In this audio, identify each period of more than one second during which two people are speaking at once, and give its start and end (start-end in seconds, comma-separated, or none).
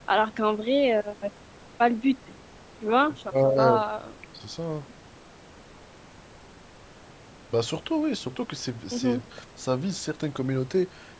none